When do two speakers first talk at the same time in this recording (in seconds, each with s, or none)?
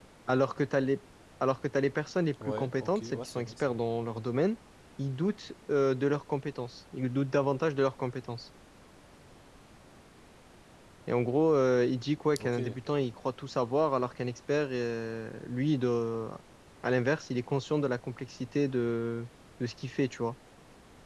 2.4 s